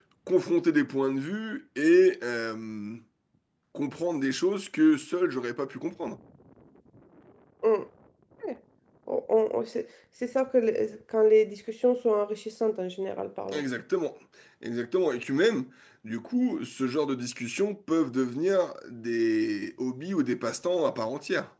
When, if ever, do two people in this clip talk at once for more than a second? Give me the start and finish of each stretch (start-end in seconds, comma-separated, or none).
none